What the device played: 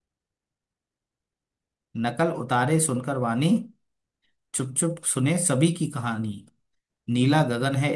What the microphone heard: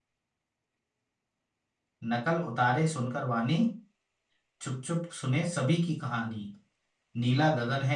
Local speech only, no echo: none

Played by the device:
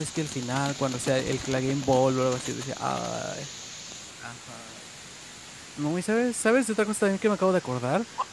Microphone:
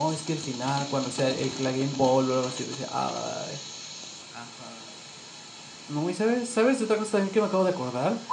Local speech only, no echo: none

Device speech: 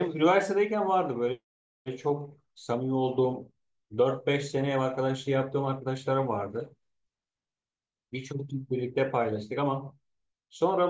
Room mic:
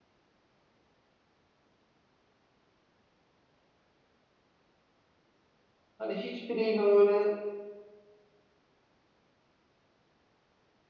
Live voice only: hani hiçbiriyle öyle

